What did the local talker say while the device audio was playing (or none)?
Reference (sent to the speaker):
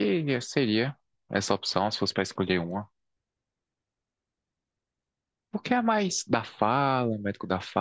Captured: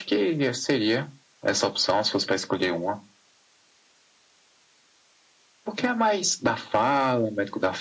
none